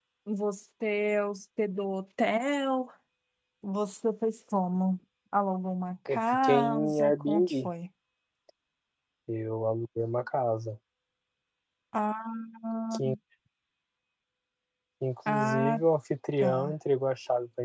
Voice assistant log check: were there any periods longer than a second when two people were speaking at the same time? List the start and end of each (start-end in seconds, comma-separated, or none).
6.1-7.7